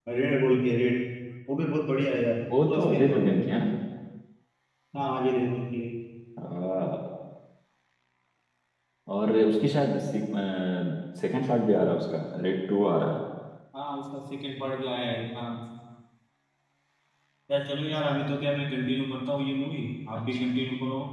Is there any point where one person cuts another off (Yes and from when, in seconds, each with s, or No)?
Yes, from 2.5 s